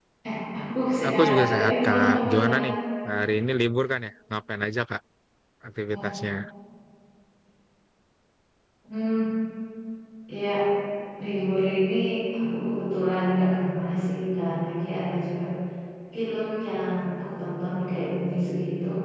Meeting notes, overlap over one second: present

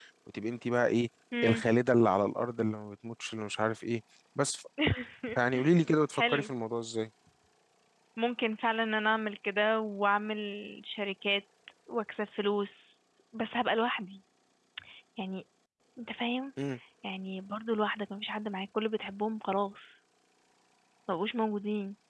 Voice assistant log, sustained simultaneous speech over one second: none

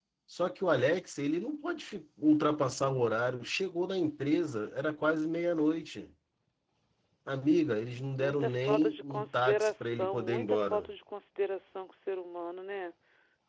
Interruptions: present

